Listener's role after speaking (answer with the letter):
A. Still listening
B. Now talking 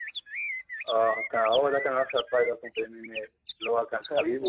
A